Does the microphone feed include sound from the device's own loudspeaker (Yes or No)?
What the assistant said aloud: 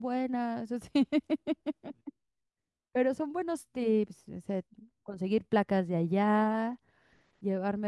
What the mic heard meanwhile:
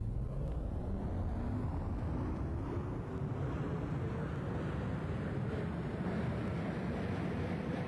No